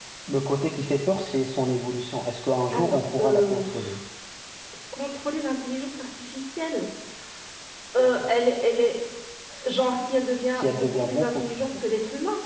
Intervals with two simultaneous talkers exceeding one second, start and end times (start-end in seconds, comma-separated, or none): 2.7-4.0, 10.5-11.8